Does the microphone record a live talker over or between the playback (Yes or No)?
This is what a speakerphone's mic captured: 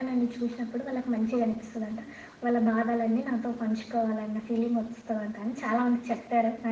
No